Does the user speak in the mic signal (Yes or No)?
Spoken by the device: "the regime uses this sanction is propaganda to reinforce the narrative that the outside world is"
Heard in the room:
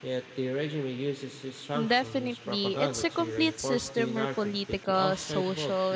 Yes